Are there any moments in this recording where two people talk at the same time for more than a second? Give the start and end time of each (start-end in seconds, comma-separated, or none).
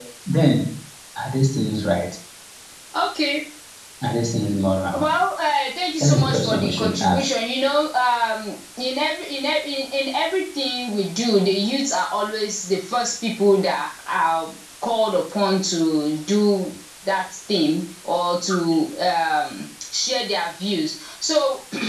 6.0-7.2